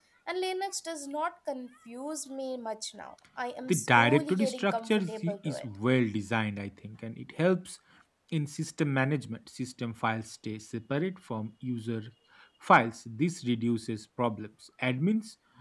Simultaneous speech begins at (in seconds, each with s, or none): 3.7 s